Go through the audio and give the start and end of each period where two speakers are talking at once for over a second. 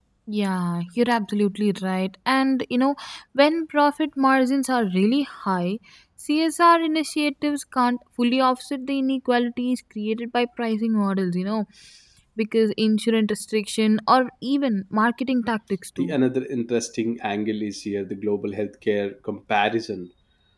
none

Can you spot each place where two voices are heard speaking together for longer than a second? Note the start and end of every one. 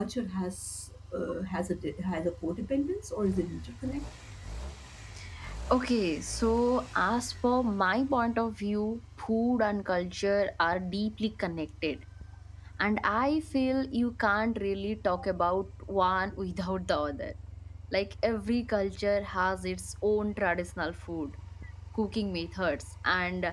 none

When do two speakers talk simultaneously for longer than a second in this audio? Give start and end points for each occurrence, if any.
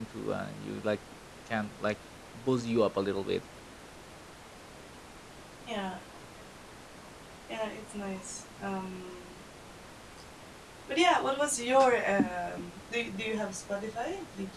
none

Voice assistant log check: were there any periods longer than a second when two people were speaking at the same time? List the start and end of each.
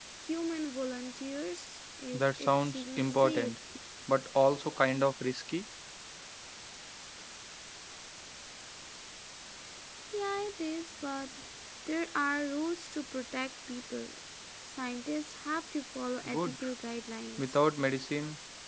2.1-3.5

